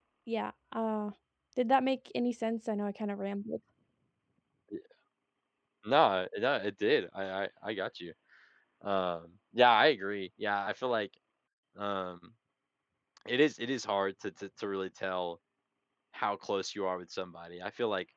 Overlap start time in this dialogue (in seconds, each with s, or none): none